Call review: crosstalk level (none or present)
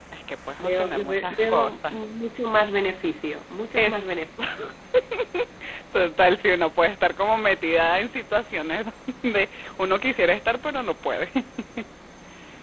present